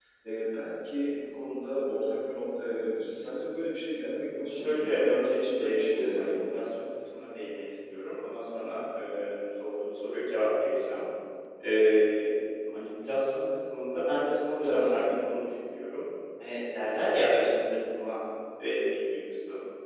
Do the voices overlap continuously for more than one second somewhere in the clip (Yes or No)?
Yes